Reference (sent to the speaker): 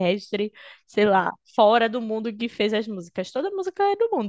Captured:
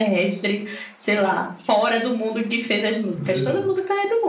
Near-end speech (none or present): present